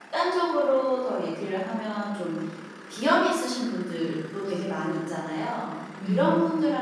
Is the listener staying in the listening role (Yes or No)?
Yes